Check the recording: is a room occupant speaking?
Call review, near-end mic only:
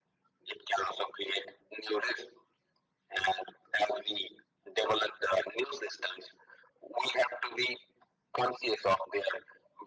No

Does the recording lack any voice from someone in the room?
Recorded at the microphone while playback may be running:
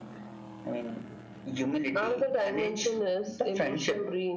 Yes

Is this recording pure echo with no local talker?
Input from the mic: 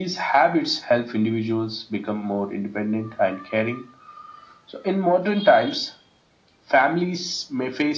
Yes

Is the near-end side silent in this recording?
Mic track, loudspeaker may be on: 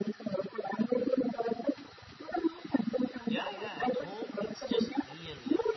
No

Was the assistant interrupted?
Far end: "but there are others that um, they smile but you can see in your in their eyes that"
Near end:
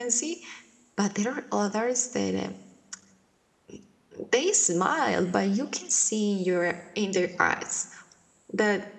No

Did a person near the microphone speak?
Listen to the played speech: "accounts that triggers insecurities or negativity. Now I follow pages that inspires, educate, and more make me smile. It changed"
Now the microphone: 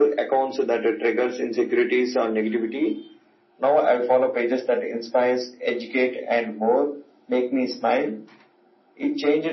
No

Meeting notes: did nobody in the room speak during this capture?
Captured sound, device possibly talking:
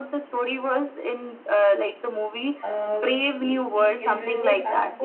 No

